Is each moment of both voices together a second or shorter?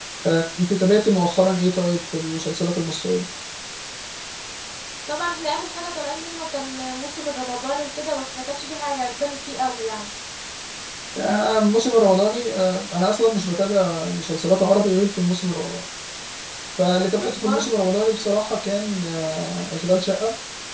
Yes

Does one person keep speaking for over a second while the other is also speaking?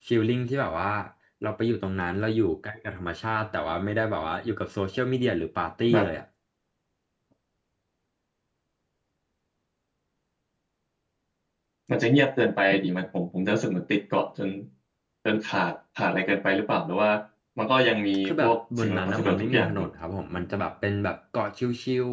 Yes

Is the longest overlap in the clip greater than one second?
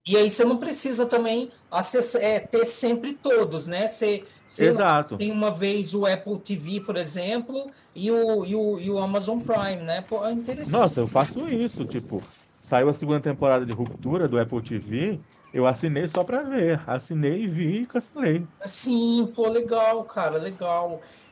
No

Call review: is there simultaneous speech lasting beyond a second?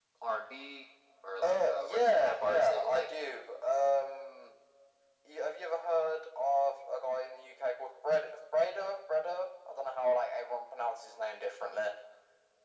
Yes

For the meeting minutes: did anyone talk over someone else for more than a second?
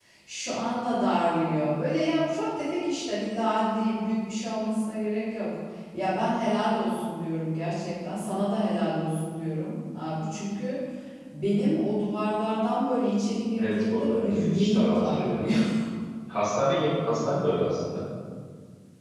Yes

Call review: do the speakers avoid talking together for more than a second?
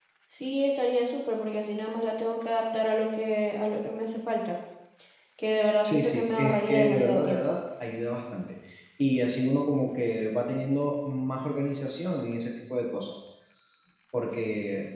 No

